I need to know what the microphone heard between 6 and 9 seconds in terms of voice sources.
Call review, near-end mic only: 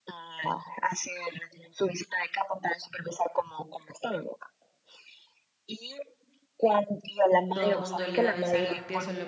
both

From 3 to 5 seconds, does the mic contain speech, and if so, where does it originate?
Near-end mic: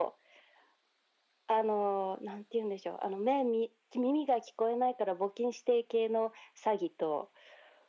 echo only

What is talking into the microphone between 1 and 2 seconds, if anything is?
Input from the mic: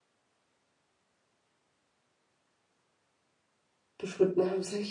neither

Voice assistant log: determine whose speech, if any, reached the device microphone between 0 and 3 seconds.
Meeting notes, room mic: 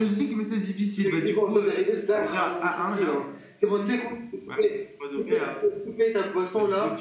both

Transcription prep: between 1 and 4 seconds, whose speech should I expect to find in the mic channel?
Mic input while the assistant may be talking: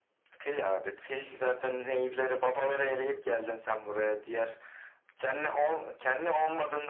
echo only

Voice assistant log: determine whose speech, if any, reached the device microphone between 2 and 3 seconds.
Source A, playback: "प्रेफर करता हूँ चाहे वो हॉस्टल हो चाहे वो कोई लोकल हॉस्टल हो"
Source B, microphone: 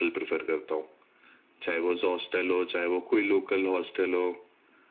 echo only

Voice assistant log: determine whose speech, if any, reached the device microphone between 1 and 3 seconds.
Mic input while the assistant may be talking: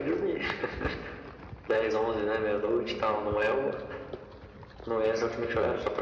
echo only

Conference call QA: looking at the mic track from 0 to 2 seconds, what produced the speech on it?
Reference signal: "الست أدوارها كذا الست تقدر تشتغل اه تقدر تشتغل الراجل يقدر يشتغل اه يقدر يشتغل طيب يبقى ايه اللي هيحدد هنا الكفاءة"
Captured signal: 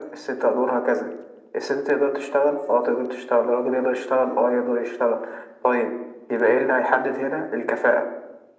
echo only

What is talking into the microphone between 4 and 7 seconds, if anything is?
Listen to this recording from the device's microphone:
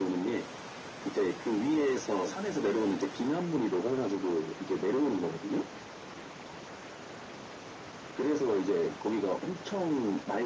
echo only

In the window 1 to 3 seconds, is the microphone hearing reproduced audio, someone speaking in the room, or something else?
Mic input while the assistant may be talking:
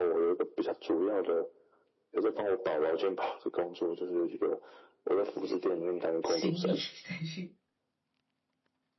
echo only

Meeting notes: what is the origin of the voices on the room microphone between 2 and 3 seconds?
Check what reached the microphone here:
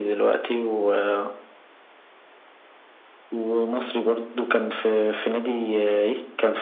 neither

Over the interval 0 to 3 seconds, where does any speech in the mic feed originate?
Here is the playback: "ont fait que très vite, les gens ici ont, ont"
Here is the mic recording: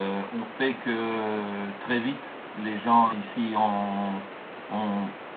echo only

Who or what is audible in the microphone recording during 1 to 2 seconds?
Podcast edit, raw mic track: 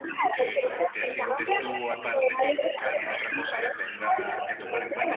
both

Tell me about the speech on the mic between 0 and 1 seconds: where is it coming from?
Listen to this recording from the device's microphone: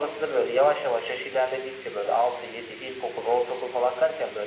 echo only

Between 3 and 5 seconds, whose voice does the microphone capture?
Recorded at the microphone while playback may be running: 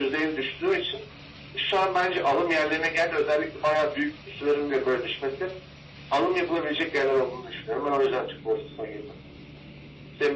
echo only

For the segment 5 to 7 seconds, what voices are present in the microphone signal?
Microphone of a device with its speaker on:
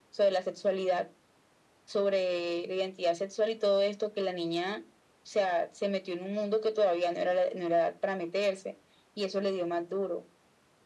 echo only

